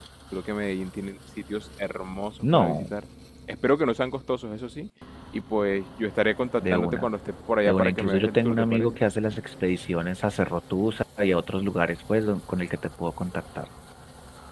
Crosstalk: present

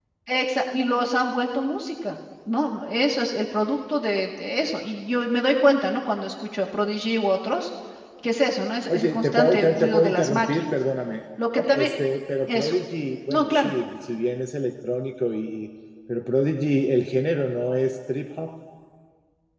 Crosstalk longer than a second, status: present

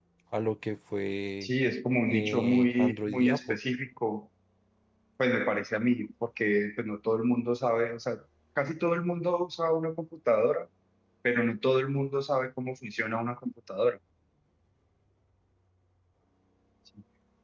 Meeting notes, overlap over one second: present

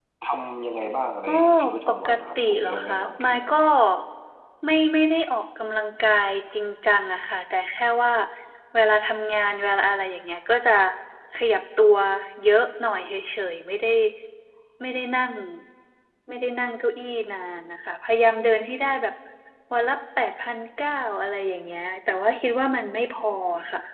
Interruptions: present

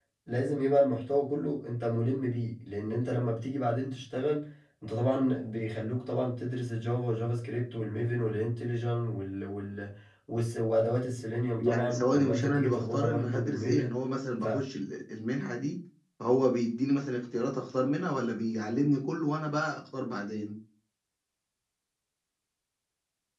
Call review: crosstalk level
present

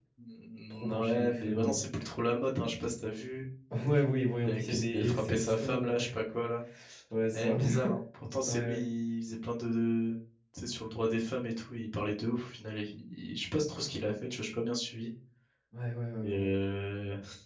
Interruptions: present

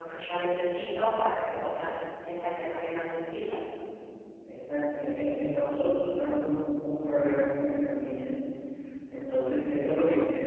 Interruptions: none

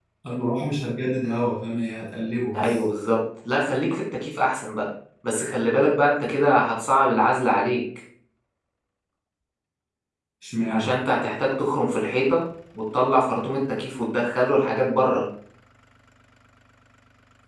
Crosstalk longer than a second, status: none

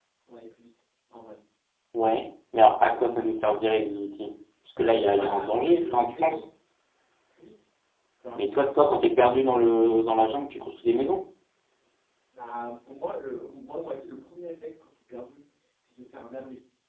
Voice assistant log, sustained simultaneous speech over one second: present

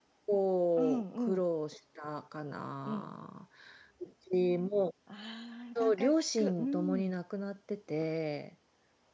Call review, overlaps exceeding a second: present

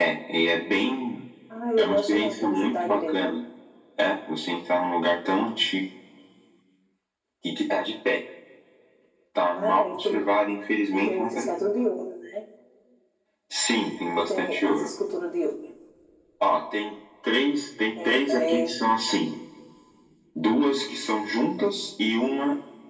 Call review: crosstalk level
present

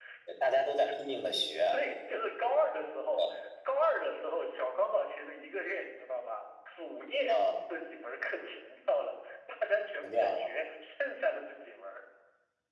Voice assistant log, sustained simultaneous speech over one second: none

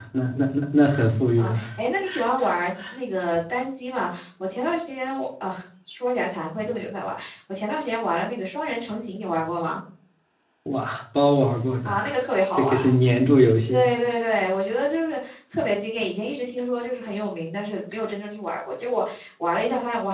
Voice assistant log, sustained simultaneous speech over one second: none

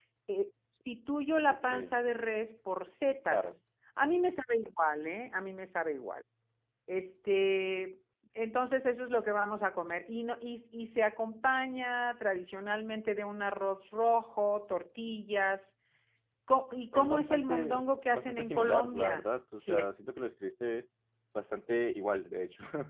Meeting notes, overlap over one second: present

